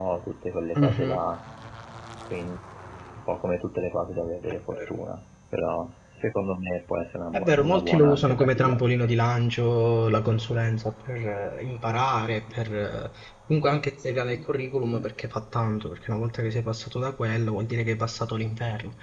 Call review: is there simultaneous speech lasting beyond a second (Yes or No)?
Yes